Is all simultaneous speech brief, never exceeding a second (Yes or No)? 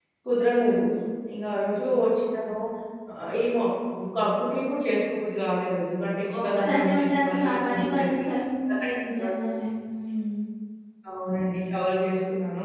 No